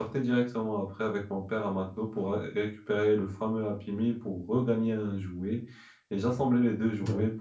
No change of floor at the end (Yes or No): Yes